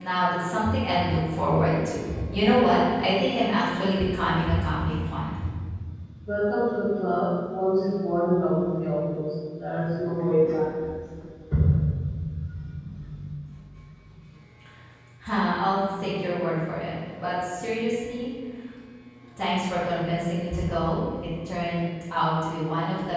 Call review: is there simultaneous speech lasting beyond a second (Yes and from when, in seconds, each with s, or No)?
No